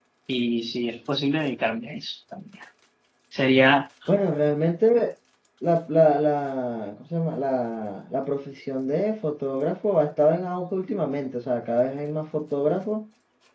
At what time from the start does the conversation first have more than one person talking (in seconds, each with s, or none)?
none